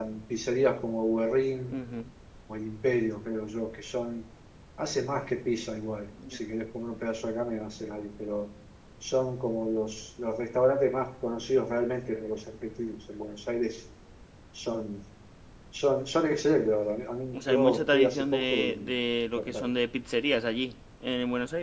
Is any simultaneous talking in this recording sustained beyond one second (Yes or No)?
Yes